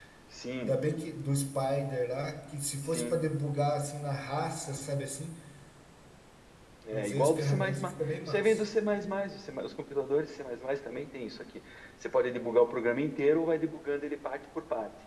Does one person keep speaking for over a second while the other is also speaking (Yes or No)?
Yes